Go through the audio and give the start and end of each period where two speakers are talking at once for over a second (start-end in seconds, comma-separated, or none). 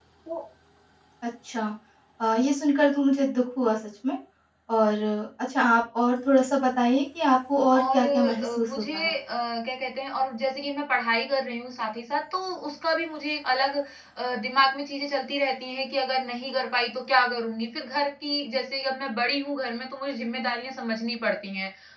7.8-9.1